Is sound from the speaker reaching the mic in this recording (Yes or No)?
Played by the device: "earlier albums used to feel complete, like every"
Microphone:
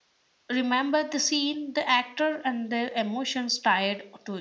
No